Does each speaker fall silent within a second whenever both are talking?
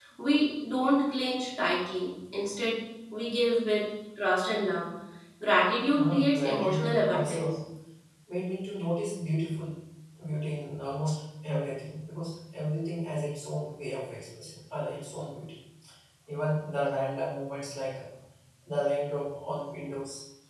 No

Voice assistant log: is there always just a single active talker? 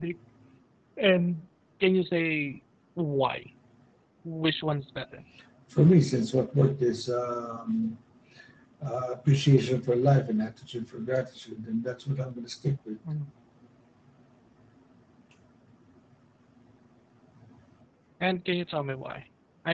Yes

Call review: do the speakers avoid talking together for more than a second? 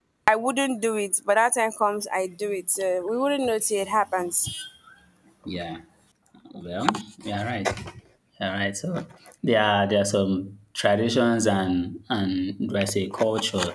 Yes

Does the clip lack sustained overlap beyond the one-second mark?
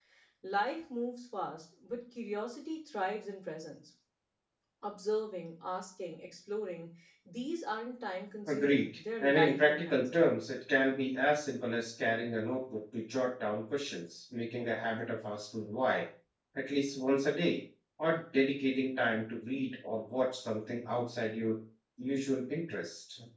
No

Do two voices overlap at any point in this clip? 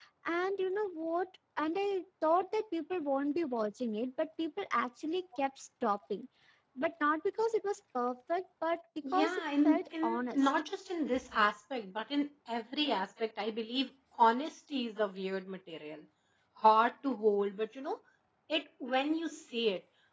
Yes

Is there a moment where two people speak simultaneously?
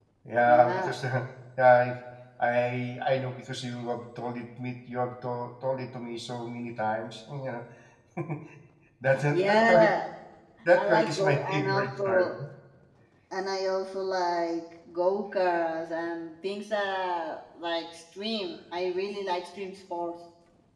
Yes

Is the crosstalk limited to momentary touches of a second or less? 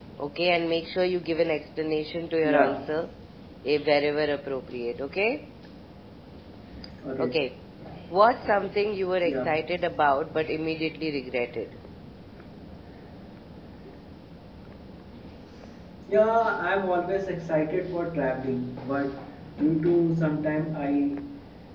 Yes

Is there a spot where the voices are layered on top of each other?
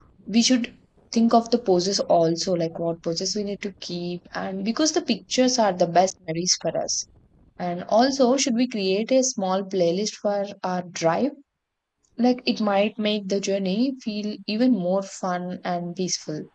No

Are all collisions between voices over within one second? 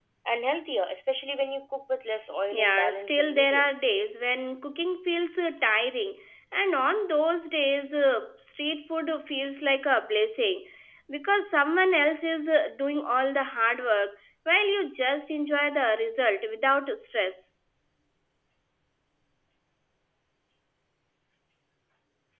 No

